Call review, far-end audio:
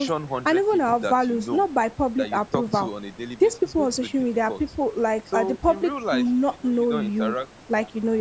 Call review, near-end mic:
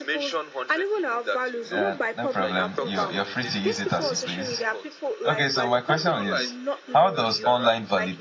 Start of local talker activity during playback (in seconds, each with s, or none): 1.7 s